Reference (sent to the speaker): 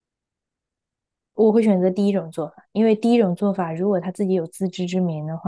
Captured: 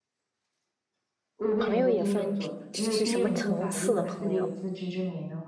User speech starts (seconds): 1.6 s

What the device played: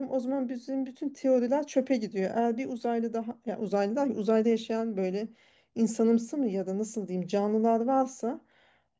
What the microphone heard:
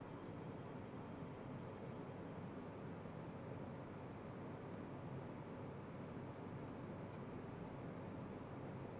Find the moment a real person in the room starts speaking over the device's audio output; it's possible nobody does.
none

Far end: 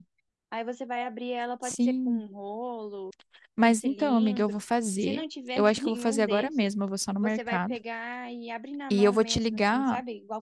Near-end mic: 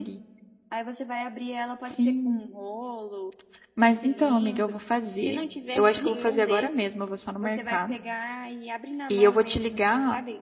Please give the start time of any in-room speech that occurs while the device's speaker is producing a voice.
none

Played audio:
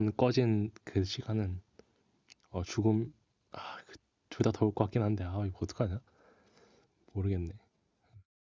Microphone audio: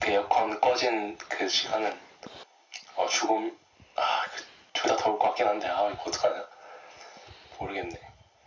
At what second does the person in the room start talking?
none

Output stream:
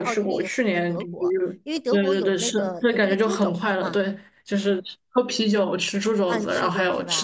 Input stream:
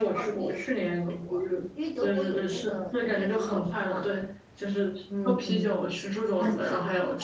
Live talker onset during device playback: 5.1 s

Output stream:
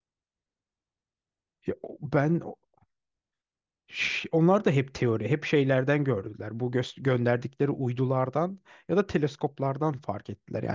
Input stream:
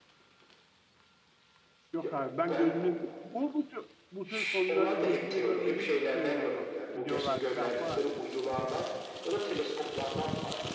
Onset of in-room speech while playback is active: 1.9 s

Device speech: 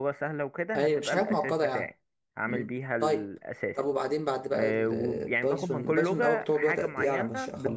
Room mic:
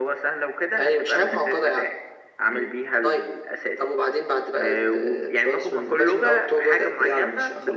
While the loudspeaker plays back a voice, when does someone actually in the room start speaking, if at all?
none

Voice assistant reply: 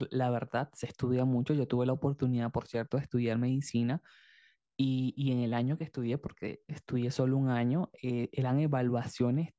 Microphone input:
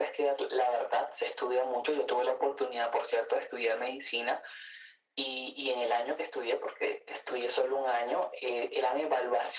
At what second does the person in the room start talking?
none

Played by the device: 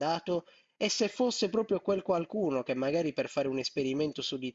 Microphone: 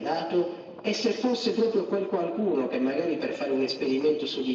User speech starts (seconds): none

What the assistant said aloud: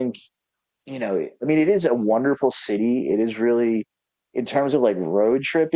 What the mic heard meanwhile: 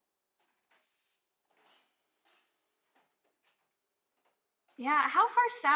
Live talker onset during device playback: 4.7 s

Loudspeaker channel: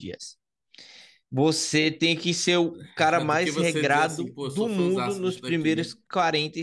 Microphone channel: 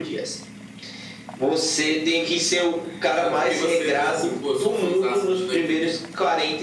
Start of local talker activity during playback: none

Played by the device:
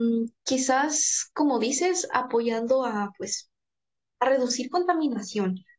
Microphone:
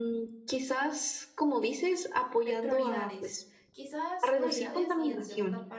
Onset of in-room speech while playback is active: 2.4 s

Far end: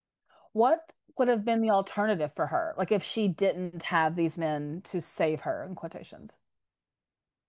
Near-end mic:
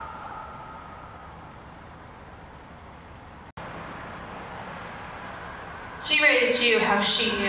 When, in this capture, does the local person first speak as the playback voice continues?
6.0 s

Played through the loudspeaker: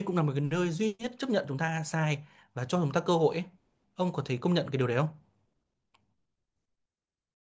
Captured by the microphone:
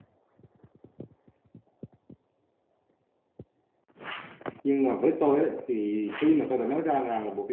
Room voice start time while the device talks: 4.6 s

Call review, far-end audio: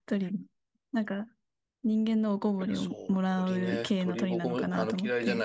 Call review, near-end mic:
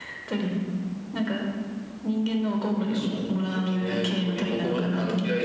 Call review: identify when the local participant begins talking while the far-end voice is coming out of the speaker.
none

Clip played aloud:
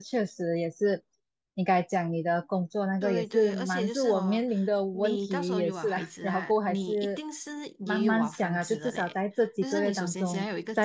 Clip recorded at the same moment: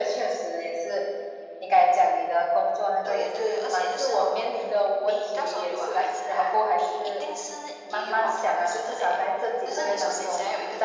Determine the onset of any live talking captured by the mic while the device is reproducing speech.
none

